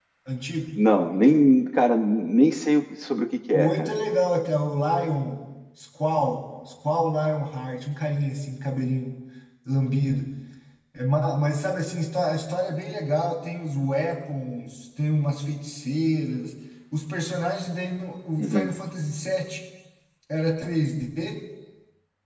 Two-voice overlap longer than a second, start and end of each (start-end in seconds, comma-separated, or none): none